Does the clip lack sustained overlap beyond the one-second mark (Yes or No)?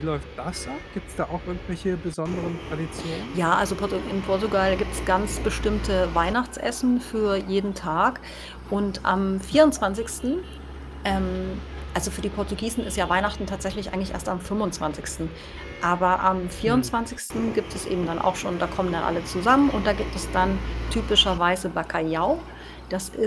Yes